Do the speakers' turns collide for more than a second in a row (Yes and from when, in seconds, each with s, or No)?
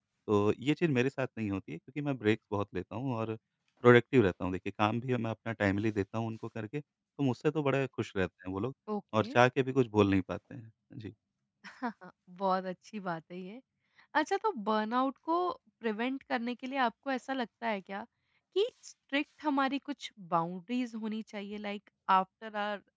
No